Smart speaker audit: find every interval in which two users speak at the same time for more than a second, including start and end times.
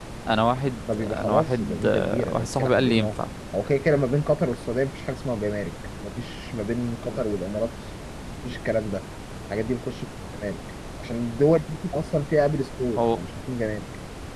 0.9-3.2

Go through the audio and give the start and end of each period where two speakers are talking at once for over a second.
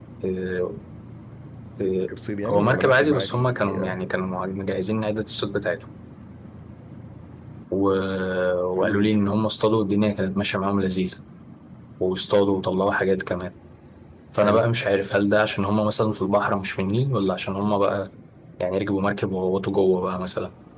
2.4-3.8

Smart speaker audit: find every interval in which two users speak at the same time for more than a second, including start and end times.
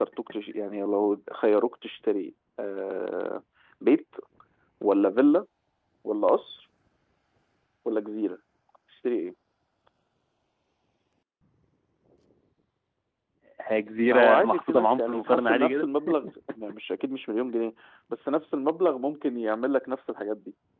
14.0-15.8

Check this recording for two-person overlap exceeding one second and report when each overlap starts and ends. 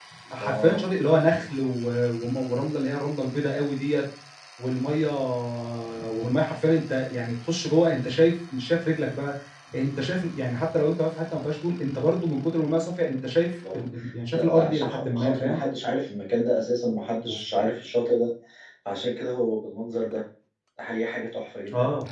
14.3-15.6

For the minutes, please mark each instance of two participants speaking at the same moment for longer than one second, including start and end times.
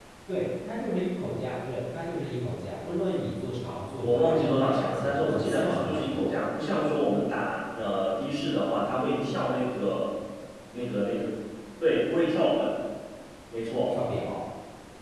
4.0-6.3

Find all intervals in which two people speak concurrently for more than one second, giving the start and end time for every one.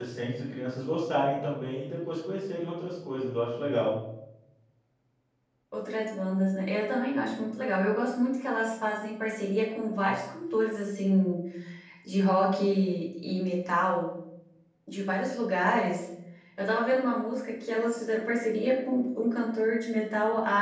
none

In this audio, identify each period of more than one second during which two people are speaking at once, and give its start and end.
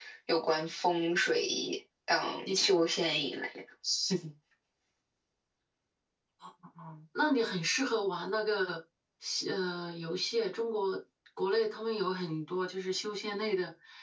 none

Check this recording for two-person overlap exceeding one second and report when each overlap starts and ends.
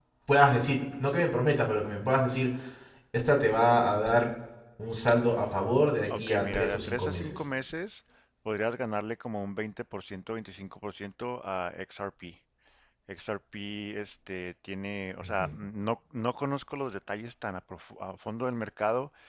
6.2-7.4

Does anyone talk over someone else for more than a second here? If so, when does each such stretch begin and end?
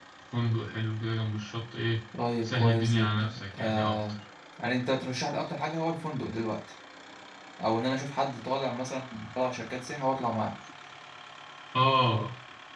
2.4-4.0

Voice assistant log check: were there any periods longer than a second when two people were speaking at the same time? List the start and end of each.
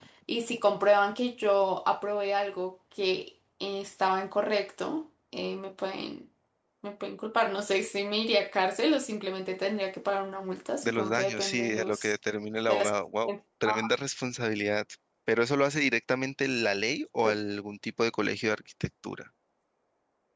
10.8-12.1

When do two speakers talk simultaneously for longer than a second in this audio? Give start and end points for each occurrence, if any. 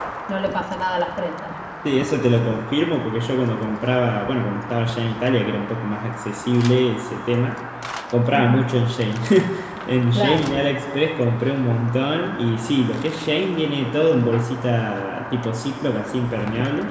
none

